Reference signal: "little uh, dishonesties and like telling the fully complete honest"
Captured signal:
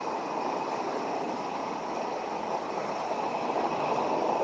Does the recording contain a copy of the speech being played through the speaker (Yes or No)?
No